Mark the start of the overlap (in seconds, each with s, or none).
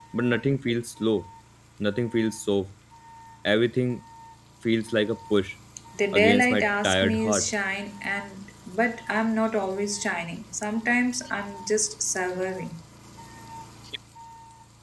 6.1 s